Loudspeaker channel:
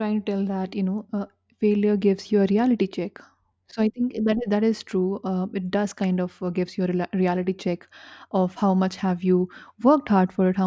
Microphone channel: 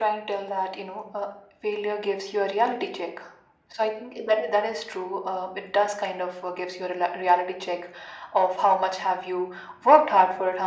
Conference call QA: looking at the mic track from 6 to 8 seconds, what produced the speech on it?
echo only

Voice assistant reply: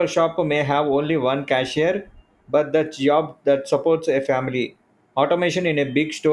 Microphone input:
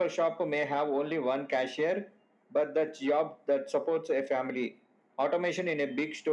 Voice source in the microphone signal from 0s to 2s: echo only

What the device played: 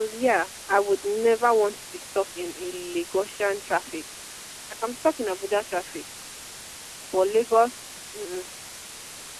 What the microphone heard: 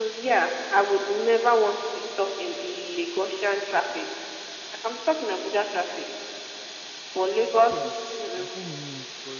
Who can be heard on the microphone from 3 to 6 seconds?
echo only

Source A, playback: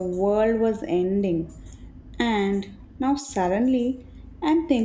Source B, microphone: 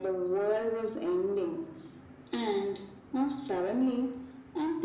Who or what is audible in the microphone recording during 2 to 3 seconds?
echo only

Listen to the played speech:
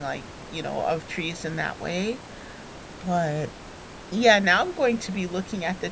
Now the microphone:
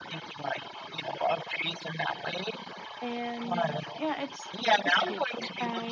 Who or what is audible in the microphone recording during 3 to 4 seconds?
both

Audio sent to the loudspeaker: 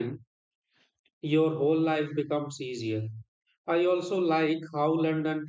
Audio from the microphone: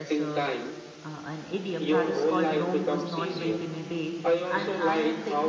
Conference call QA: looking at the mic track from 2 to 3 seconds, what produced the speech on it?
both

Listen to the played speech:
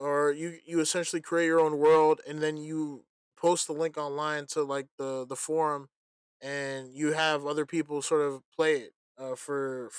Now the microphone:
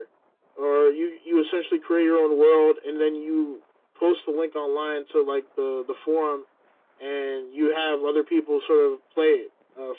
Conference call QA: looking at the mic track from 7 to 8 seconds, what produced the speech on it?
echo only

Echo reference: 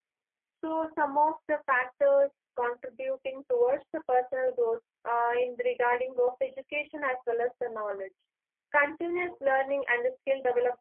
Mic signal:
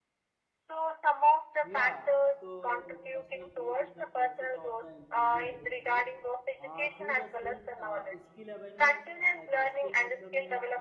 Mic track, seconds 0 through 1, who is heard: echo only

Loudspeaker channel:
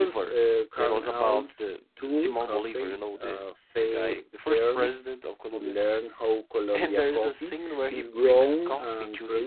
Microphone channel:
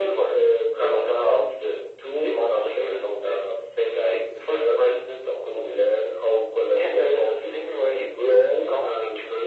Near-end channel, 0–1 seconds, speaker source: echo only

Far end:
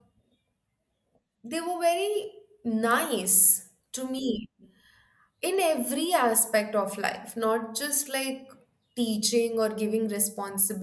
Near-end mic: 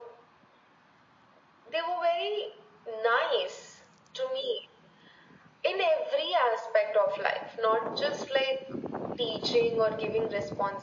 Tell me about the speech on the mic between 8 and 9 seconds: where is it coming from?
echo only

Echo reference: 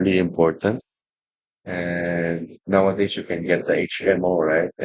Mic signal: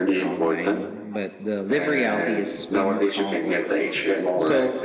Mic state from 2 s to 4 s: both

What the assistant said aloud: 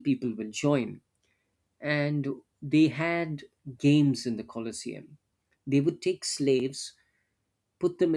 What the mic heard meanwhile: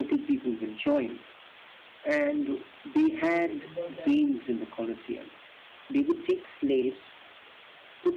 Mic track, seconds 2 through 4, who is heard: both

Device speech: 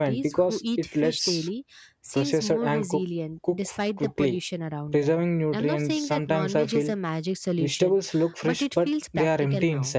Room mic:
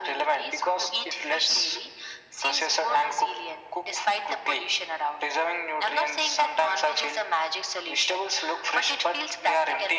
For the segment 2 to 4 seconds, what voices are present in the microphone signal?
echo only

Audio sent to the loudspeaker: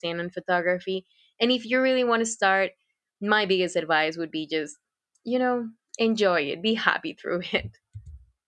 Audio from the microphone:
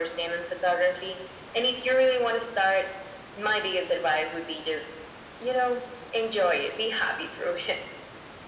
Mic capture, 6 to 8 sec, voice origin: echo only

